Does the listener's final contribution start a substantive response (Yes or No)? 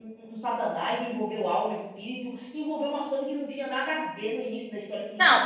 Yes